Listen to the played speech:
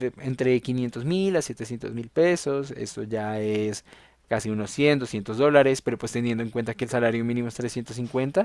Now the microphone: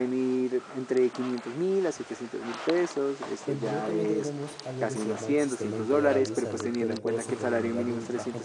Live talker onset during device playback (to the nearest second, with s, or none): 3 s